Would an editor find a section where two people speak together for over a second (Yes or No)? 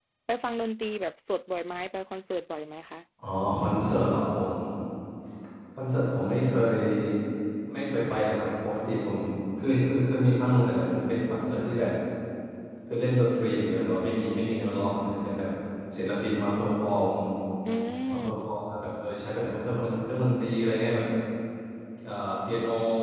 No